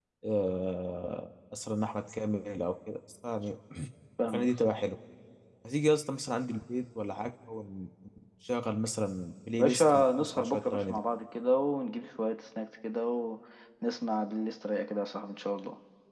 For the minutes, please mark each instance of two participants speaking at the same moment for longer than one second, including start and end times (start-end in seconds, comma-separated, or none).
9.6-11.0